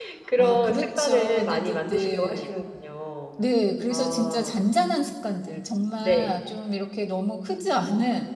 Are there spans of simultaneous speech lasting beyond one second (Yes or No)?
Yes